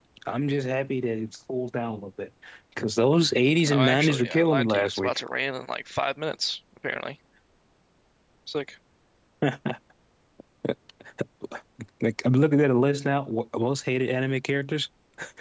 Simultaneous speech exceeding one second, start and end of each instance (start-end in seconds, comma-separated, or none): 3.7-5.2